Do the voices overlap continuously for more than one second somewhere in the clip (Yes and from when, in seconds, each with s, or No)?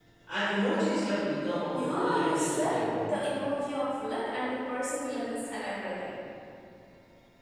Yes, from 1.8 s